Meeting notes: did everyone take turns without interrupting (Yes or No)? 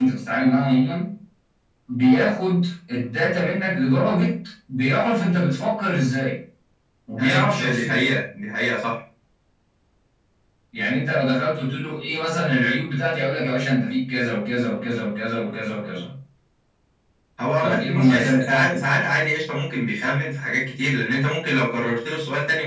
No